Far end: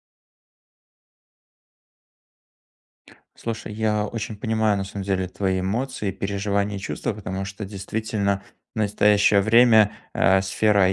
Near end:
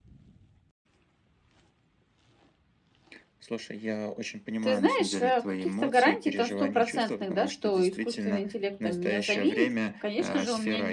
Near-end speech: present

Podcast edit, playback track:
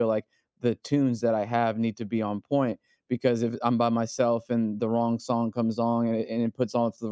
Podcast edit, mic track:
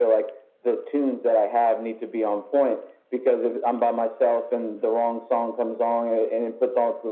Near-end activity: none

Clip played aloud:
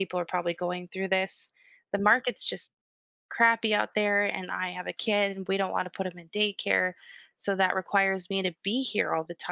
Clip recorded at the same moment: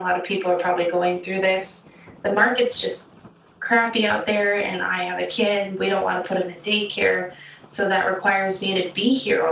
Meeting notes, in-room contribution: none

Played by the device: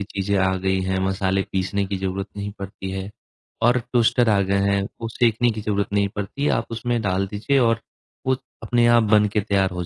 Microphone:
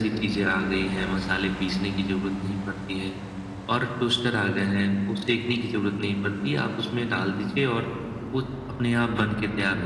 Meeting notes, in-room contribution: none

